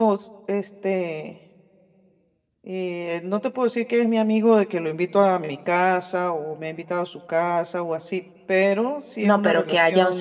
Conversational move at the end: taking over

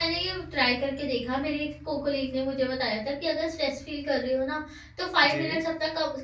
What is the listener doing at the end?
listening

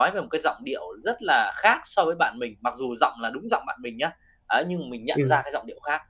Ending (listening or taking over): listening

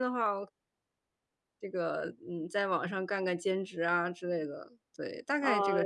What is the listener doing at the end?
taking over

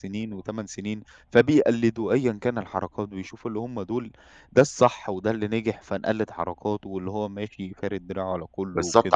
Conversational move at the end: taking over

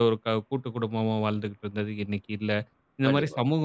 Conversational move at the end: listening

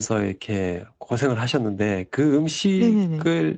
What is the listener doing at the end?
listening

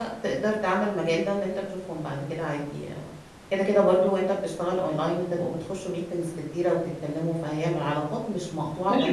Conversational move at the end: taking over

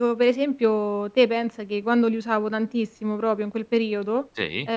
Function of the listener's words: listening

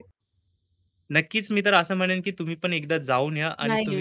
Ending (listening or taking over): taking over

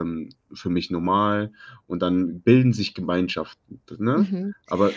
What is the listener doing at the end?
taking over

